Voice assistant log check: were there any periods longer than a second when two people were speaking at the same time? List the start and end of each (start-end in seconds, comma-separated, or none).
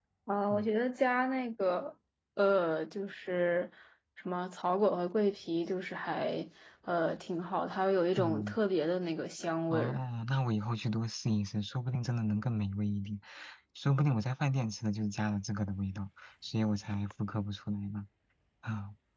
none